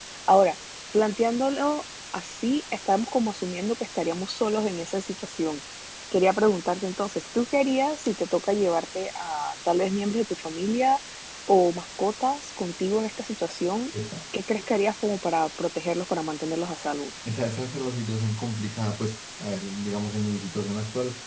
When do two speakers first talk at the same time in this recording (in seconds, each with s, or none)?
none